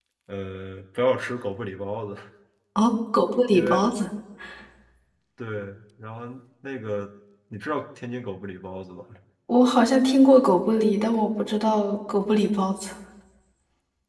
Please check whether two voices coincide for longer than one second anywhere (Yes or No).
No